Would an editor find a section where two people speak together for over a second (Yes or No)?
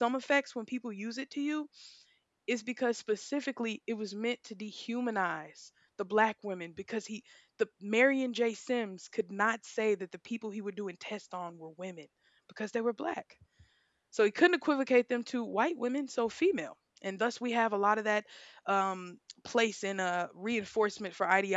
No